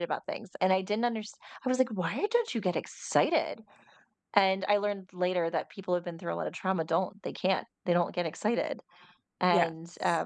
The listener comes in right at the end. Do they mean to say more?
No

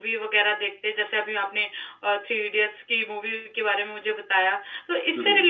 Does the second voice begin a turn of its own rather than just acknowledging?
No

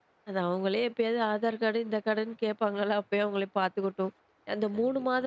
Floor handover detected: No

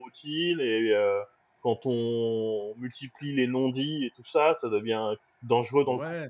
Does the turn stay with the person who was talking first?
No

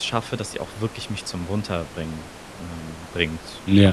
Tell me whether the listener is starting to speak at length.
Yes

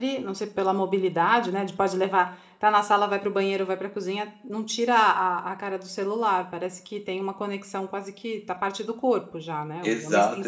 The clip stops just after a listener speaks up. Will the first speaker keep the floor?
No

